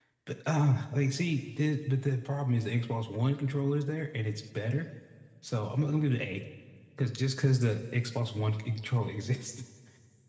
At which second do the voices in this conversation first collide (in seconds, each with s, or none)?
none